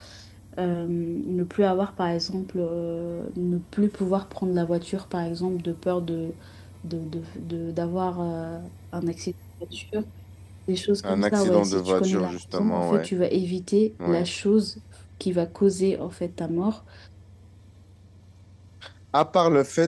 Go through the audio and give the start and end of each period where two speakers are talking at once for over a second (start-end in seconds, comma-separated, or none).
11.1-13.1